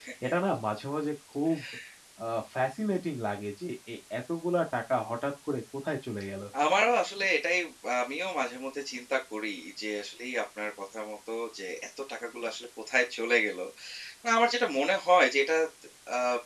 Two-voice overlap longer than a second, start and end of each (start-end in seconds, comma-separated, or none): none